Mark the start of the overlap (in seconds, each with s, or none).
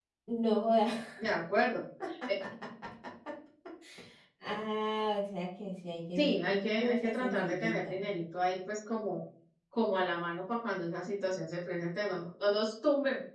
6.2 s